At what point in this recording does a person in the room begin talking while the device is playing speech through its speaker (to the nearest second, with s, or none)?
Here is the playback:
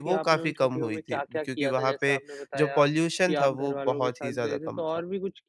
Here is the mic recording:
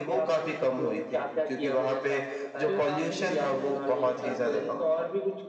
3 s